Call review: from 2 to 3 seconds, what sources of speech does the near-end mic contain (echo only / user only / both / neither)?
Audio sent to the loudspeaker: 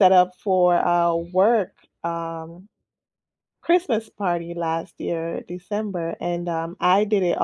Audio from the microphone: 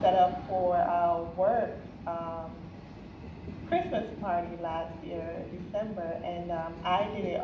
echo only